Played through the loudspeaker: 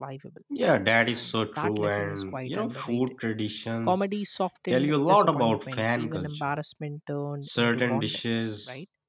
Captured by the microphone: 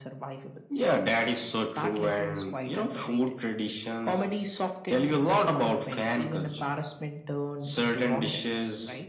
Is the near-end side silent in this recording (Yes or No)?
Yes